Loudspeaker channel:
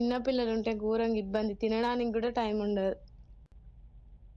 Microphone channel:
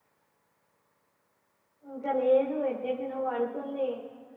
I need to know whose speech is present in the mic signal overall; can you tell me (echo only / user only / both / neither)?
user only